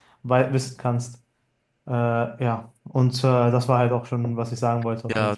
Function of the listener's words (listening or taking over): taking over